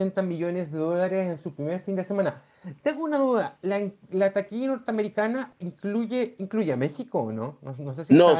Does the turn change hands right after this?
Yes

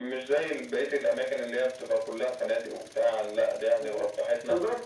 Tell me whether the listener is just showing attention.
No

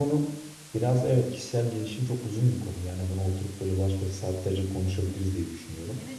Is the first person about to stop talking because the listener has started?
Yes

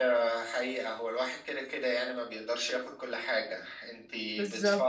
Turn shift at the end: No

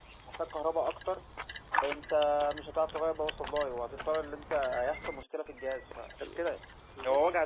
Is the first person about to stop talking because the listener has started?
No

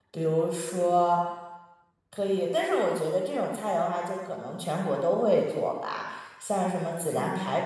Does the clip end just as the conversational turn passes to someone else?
No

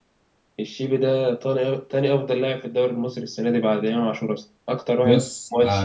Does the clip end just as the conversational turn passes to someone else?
Yes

